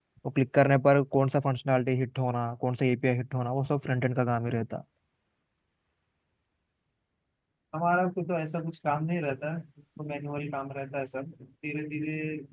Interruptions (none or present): none